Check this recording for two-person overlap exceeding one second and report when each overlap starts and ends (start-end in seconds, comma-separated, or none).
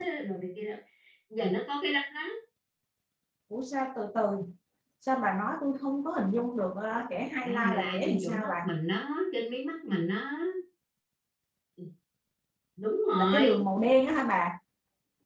7.4-8.7